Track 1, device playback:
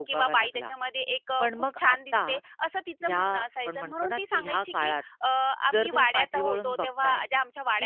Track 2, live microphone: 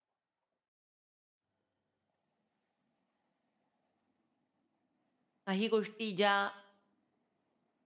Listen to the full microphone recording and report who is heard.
user only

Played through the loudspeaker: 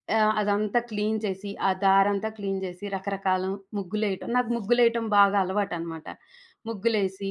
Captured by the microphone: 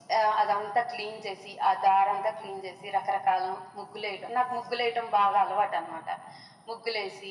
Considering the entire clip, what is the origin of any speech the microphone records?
echo only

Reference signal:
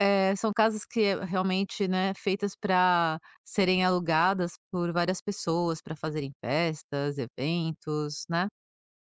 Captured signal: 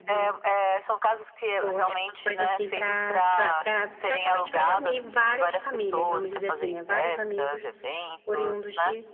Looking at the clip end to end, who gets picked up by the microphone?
both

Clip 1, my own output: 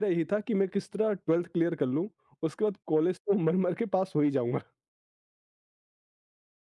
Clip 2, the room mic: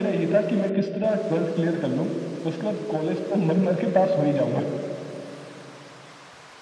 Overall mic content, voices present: echo only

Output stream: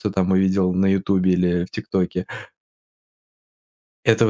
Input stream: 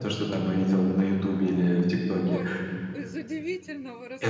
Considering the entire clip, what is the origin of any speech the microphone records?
both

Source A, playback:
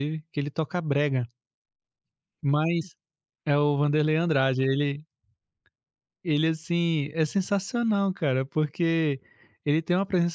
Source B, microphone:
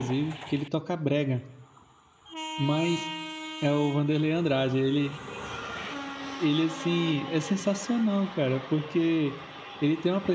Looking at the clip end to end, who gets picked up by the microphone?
echo only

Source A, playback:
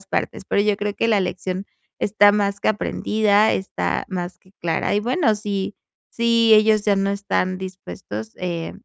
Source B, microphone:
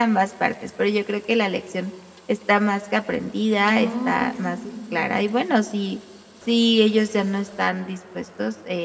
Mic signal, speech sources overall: both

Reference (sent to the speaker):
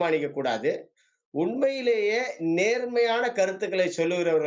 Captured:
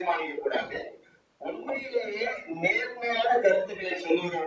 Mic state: echo only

